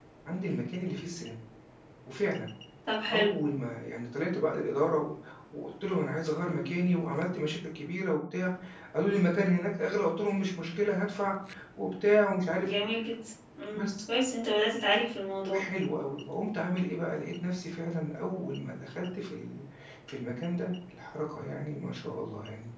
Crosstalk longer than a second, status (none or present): none